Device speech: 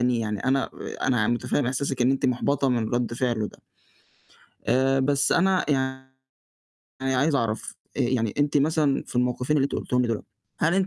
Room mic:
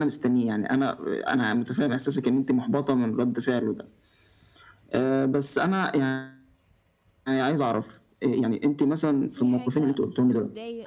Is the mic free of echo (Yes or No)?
No